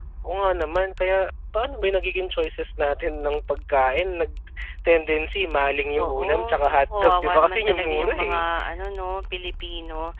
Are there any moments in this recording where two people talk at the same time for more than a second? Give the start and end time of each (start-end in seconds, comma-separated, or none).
6.0-8.5